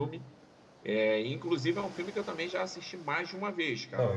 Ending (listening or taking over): taking over